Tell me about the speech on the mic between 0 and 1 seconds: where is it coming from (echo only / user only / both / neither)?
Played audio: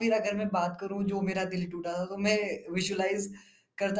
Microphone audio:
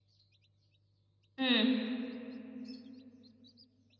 neither